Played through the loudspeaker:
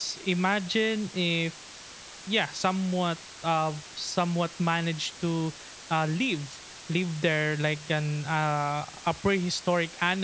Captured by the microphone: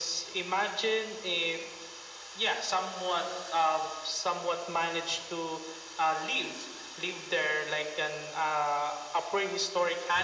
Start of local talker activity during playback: none

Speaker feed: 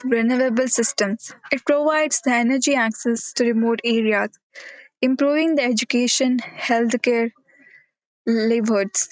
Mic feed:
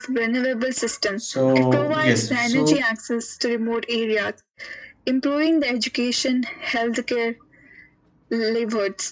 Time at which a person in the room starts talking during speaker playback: 1 s

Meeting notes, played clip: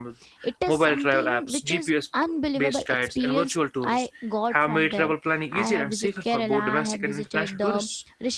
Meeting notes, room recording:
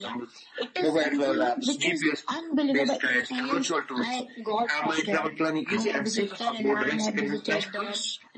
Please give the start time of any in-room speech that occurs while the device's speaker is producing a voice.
none

